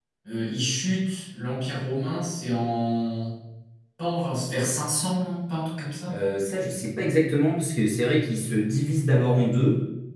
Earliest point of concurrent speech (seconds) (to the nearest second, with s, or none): none